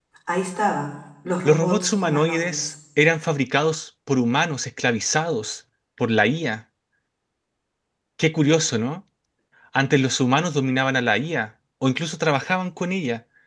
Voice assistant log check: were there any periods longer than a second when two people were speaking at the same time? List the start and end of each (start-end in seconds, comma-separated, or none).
1.4-2.7